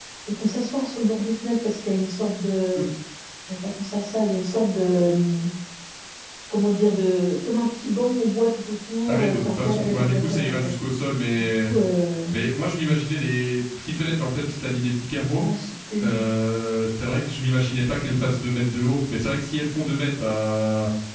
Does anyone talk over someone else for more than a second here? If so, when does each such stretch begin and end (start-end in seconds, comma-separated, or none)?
9.1-10.5